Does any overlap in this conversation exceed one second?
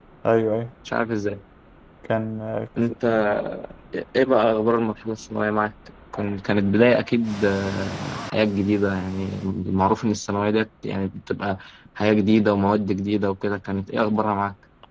No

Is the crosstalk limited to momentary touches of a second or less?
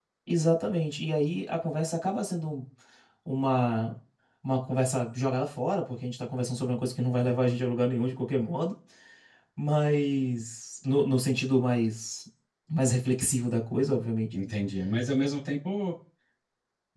Yes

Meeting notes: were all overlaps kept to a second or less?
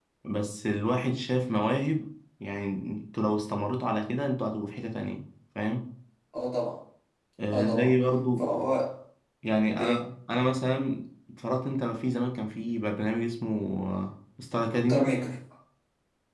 Yes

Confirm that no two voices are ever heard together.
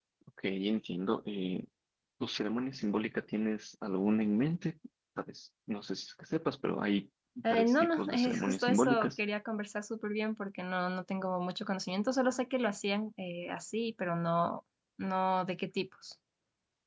No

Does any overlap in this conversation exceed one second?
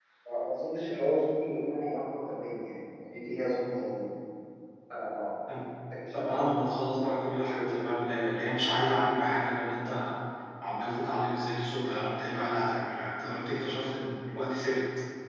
No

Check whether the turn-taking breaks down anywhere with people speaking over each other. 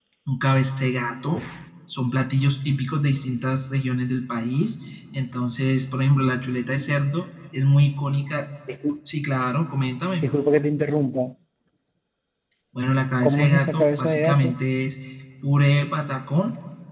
Yes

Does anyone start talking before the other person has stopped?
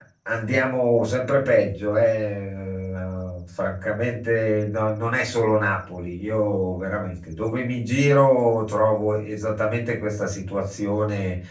No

